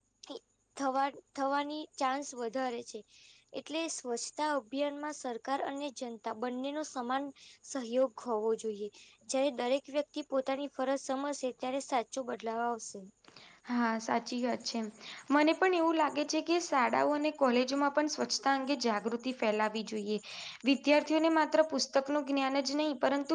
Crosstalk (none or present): none